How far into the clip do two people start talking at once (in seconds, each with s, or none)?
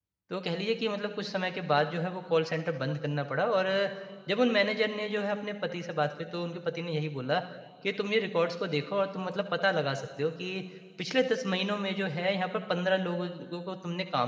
none